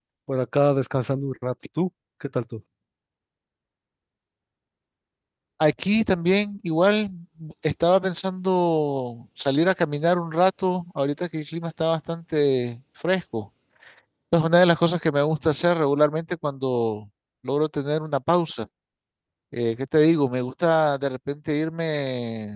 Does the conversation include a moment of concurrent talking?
No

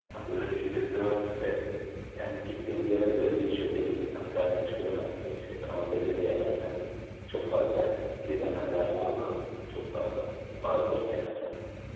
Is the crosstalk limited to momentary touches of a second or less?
Yes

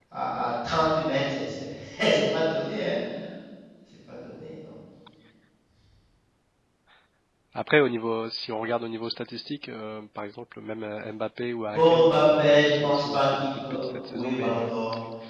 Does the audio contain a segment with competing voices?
Yes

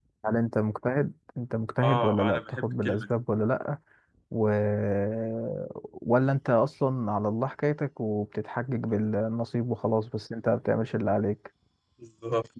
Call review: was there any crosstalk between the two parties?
Yes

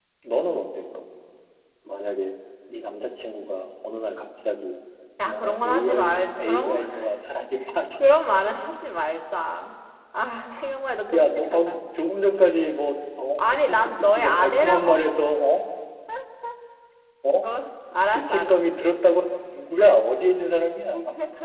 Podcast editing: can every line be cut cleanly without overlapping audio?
No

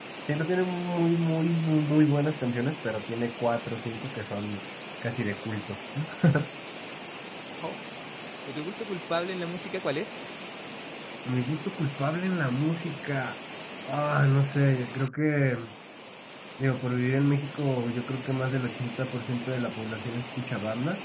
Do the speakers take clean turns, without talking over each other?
Yes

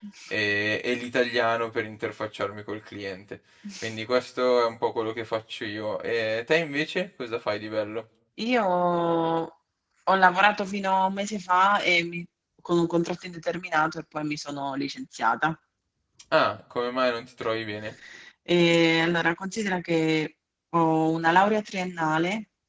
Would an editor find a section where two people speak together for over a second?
No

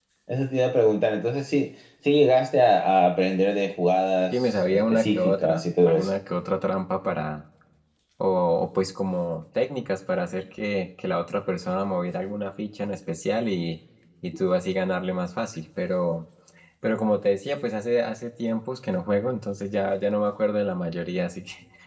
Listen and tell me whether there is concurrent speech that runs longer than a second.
Yes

